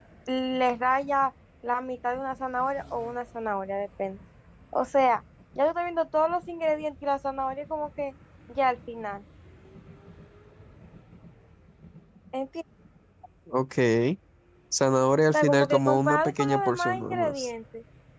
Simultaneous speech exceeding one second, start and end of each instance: 15.3-17.5

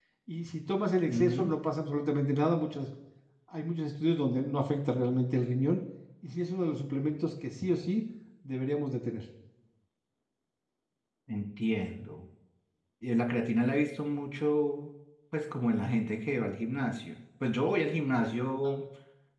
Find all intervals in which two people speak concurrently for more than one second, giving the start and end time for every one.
none

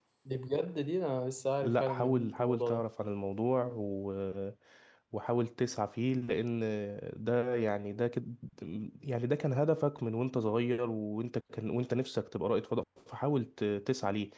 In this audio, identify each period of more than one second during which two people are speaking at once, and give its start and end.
1.6-2.9

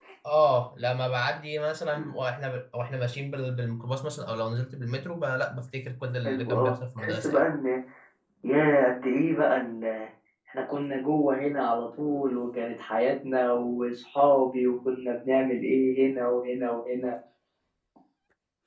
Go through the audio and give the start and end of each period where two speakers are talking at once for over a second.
6.2-7.4

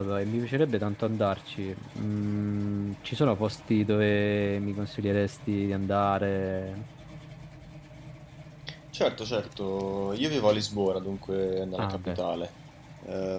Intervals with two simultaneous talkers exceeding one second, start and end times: none

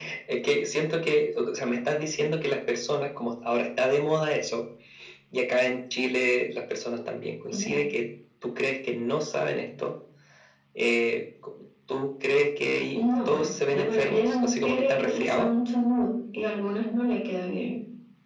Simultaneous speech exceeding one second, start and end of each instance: 12.9-15.5

